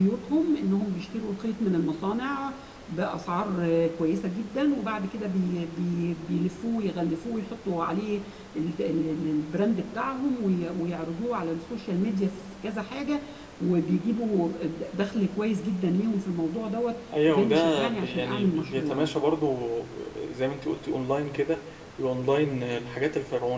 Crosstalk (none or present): present